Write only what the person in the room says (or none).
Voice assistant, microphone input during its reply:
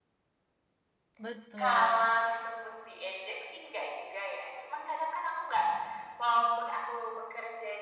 Betul.